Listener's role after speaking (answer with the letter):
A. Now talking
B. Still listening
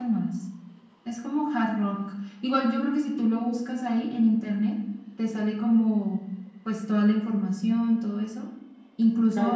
B